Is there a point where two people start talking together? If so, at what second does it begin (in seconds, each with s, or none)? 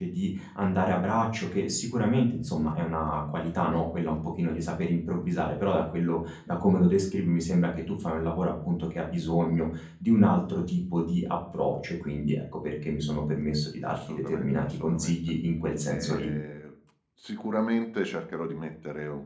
13.9 s